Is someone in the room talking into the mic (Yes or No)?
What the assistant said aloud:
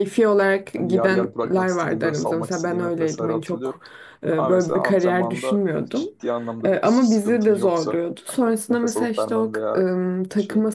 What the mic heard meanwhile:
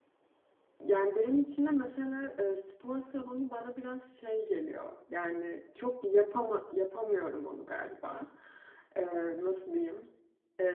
Yes